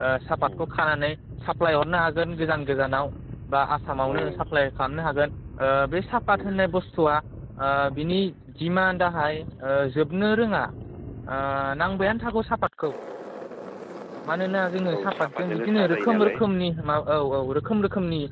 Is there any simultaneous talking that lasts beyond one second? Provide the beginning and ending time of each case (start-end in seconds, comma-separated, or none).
14.9-16.4